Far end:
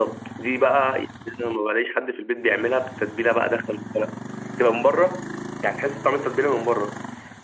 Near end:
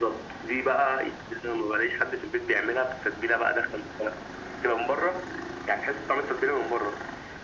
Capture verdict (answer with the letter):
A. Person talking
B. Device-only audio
B